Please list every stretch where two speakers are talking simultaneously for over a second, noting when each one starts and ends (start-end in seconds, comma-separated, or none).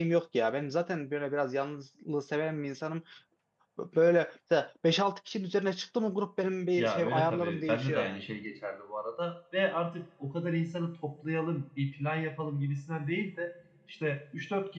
6.8-8.2